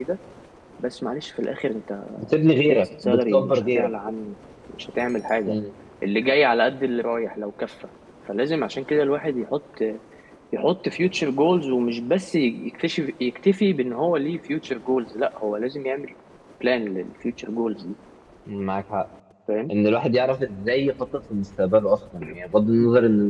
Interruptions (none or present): present